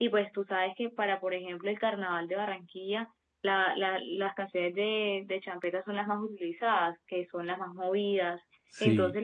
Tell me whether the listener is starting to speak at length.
No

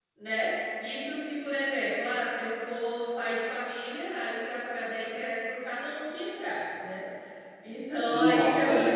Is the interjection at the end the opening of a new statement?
No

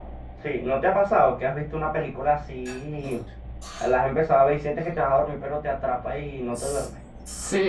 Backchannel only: No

